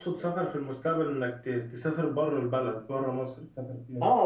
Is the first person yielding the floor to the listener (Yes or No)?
Yes